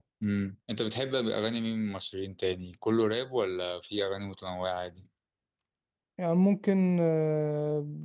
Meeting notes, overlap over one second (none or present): none